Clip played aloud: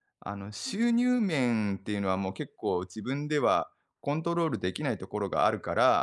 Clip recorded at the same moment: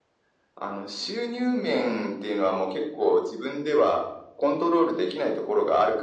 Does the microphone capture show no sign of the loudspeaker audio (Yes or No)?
No